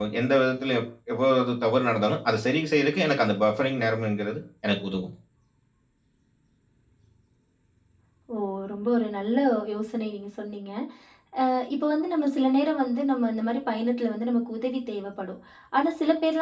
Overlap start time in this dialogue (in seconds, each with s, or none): none